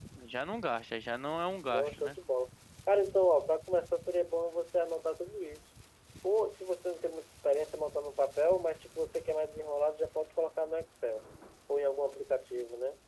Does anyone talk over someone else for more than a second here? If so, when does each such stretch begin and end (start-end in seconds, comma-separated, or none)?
none